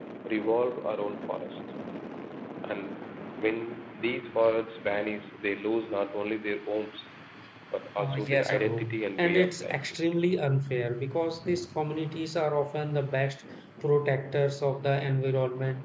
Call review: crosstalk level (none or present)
present